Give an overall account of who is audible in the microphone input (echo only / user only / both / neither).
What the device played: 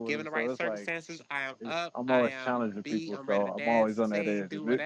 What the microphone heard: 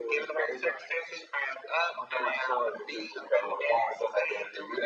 echo only